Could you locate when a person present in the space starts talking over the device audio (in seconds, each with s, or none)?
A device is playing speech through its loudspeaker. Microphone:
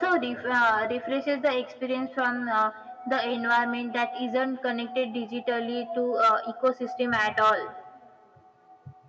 none